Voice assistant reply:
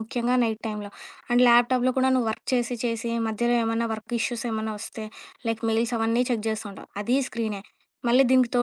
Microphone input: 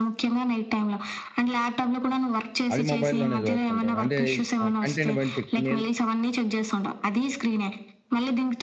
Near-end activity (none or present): present